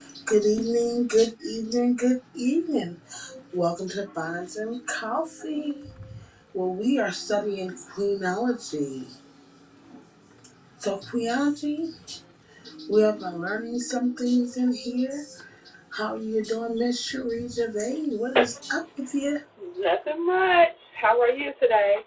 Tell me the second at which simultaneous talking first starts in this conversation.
none

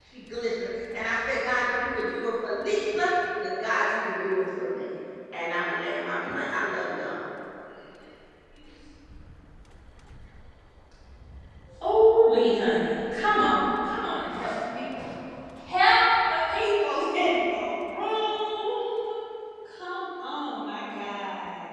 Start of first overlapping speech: none

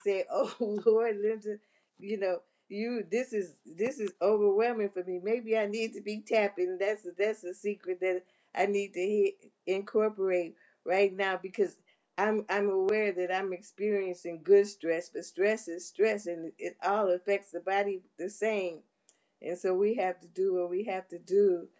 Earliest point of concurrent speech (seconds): none

